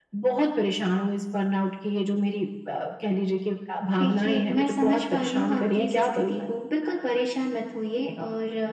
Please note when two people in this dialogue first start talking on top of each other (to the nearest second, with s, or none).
4 s